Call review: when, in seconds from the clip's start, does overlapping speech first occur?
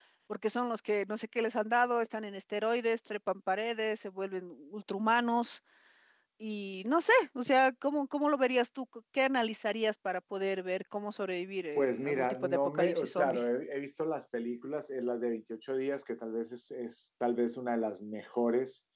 11.8 s

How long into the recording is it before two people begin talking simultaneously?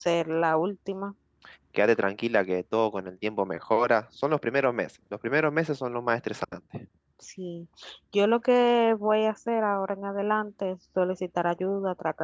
none

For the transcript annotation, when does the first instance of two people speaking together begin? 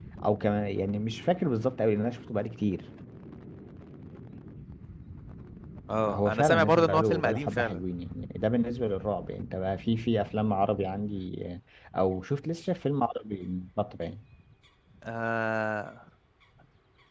6.1 s

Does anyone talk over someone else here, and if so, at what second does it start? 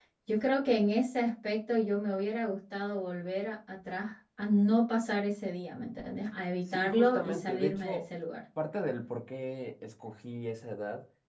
6.7 s

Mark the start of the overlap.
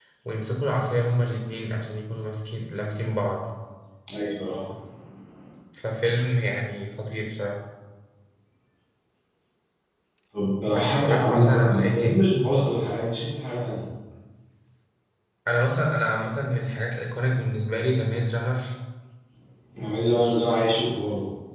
10.7 s

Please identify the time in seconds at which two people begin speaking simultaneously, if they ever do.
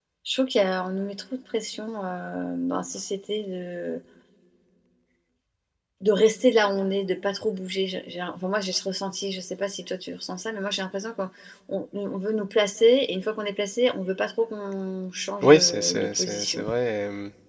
15.4 s

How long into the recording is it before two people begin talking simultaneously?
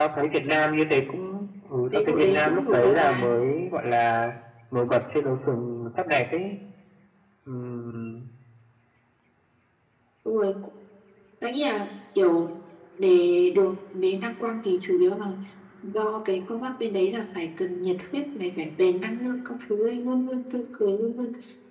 1.9 s

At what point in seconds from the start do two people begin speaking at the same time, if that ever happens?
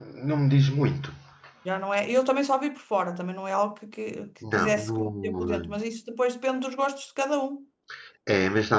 4.4 s

